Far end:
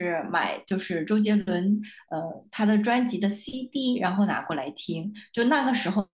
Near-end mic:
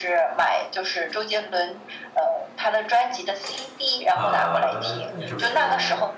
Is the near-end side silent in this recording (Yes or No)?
No